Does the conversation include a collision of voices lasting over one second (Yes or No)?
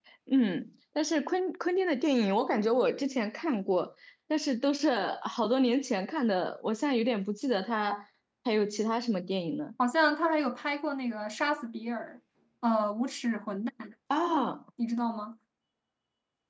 No